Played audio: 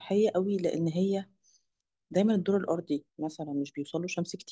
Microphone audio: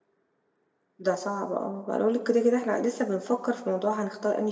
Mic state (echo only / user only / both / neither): user only